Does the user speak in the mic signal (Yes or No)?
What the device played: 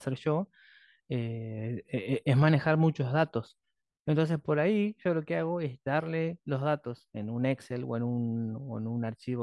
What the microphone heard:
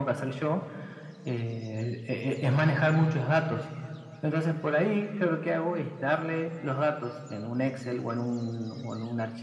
No